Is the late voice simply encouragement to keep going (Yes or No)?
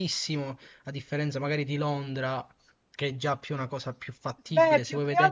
No